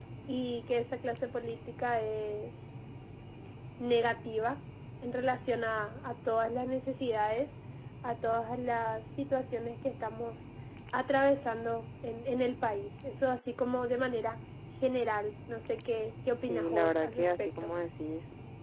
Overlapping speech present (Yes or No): Yes